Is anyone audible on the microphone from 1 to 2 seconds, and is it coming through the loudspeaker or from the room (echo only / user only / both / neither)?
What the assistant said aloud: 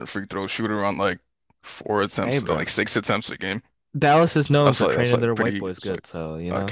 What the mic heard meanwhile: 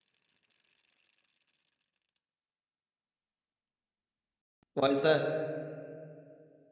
neither